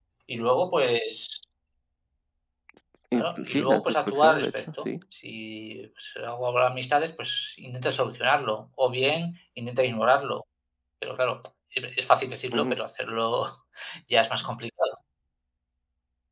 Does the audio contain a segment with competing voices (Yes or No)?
Yes